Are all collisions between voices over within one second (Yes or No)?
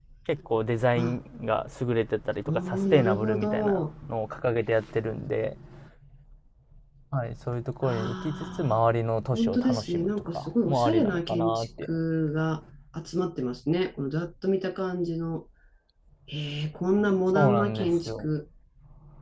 No